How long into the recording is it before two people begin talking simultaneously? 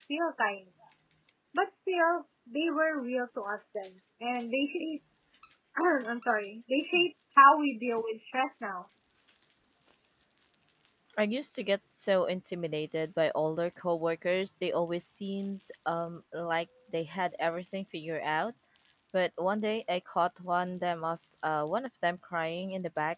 none

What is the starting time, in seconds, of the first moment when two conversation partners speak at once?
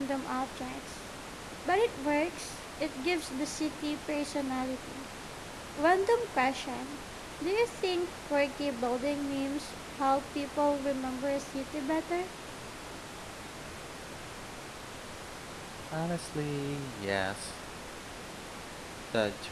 none

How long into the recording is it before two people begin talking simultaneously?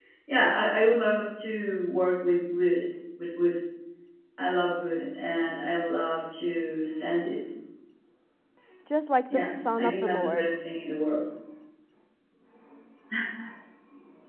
9 s

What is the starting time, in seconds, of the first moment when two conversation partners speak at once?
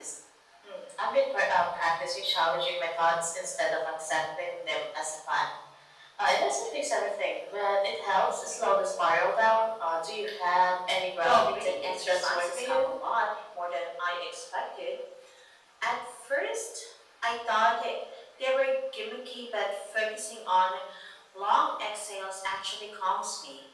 11 s

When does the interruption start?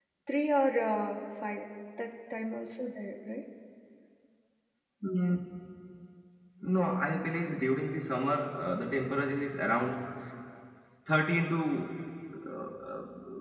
none

